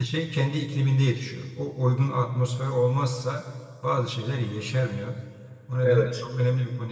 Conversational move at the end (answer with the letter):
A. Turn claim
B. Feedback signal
B